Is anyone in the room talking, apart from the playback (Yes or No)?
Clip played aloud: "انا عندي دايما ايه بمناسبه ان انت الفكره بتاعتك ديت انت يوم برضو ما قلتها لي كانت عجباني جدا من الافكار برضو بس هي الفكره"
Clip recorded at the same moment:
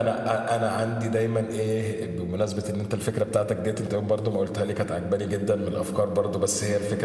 No